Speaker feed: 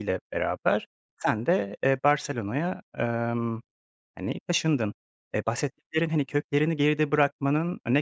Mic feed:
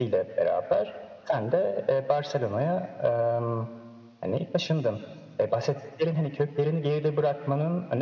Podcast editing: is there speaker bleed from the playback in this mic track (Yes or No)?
Yes